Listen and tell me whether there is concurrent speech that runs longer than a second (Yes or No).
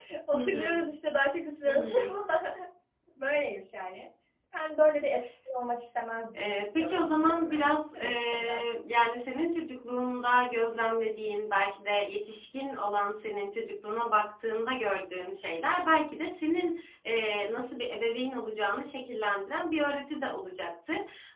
Yes